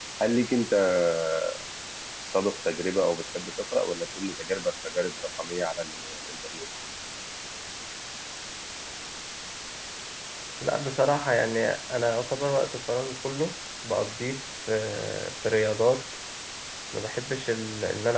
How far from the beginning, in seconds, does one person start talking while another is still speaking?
none

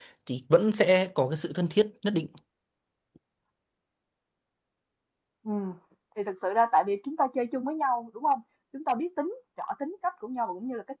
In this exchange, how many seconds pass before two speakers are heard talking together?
none

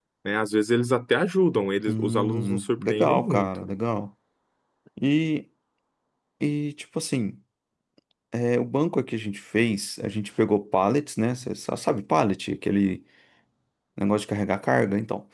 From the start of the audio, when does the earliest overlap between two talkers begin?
1.9 s

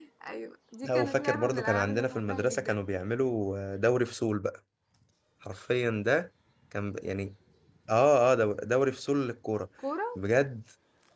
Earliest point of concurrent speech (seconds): 0.8 s

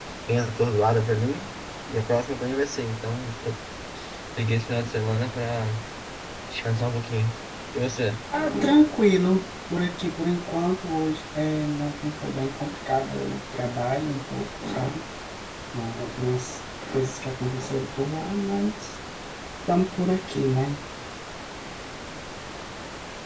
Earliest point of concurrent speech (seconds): none

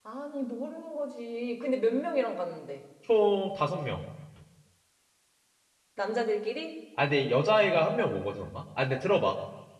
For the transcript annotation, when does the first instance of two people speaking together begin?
none

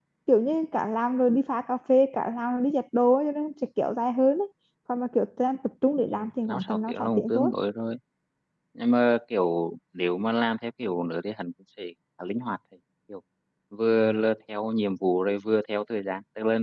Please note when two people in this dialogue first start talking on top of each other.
6.1 s

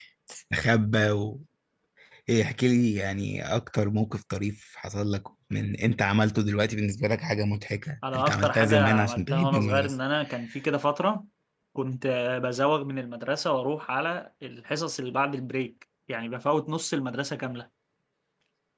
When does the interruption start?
8.0 s

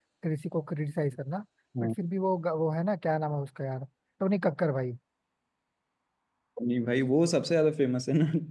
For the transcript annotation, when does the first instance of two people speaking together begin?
none

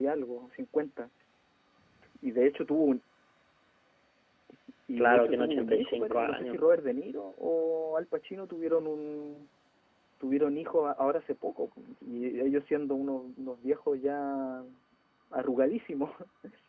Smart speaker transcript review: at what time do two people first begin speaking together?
5.0 s

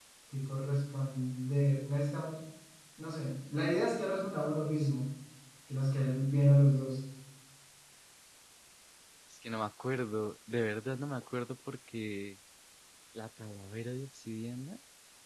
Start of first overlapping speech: none

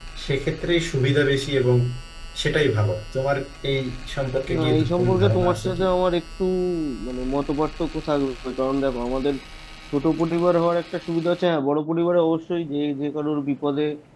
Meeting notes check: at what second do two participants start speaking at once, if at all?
4.5 s

